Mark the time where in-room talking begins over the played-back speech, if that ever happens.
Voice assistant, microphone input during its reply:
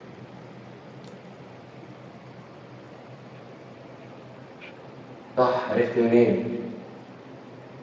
5 s

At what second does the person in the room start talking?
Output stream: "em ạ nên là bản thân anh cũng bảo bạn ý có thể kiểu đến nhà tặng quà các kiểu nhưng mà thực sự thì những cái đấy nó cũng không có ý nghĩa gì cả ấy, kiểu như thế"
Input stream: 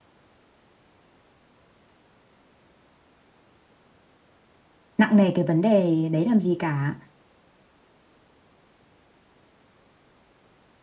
5 s

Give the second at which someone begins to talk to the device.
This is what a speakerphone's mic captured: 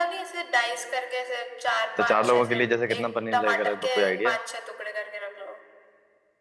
2 s

